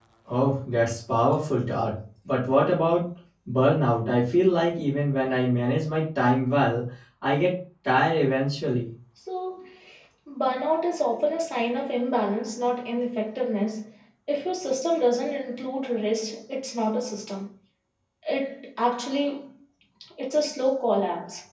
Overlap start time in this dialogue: none

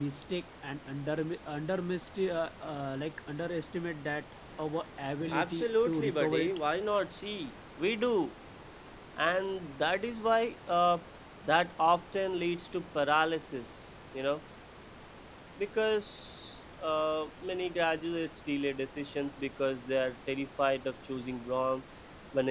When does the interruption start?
5.3 s

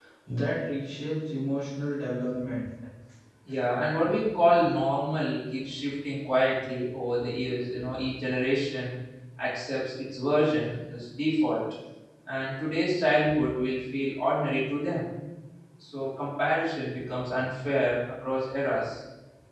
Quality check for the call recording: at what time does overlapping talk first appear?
none

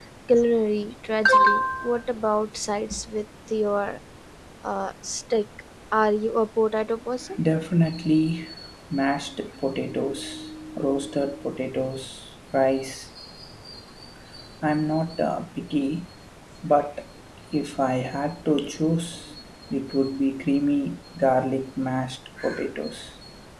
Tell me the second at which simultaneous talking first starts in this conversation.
none

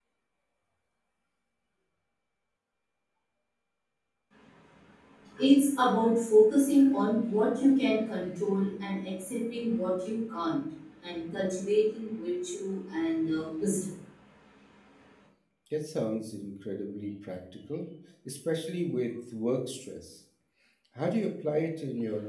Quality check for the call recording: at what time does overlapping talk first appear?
none

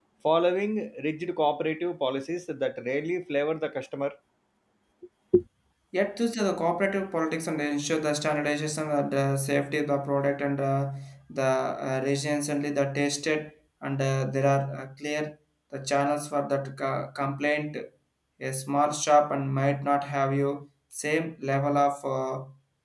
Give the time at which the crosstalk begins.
none

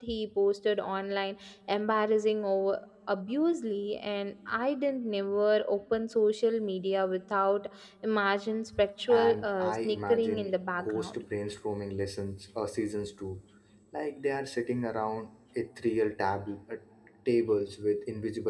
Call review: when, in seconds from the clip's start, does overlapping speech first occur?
9.1 s

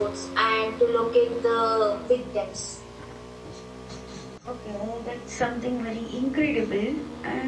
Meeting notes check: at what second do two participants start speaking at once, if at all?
none

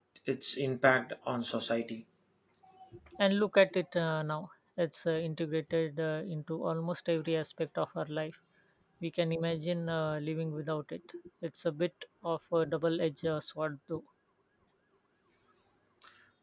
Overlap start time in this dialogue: none

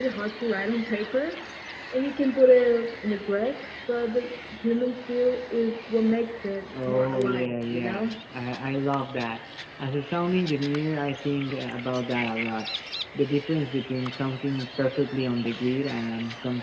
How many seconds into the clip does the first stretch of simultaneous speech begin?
6.7 s

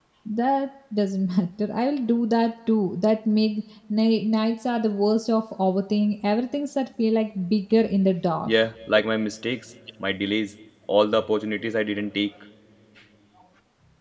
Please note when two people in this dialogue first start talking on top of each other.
none

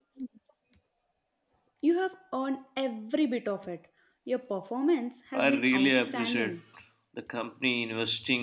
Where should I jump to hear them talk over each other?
5.3 s

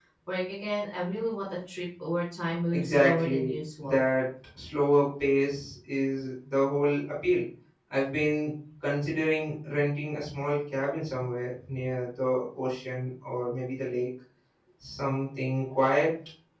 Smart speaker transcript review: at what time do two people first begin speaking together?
2.7 s

